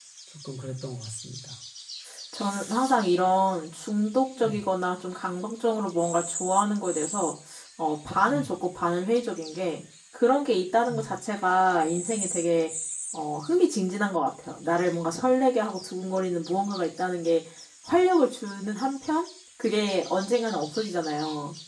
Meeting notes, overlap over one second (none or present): none